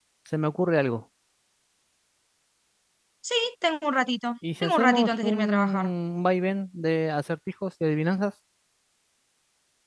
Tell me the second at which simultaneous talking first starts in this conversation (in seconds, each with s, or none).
4.4 s